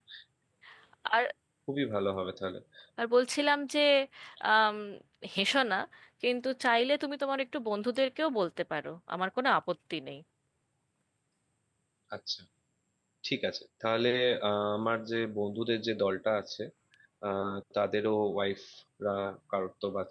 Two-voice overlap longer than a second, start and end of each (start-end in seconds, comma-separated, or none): none